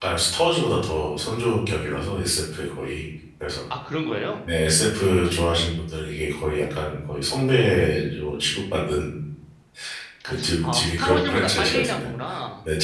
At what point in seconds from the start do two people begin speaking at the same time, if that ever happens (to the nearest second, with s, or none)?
10 s